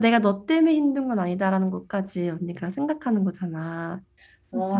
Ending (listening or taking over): taking over